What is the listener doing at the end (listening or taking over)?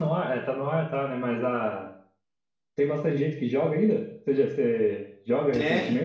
taking over